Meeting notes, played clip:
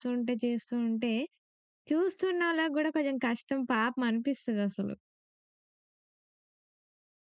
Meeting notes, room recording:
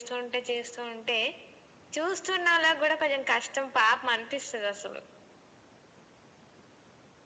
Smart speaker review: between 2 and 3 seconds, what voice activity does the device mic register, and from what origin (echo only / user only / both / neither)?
echo only